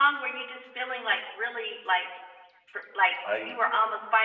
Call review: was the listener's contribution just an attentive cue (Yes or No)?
Yes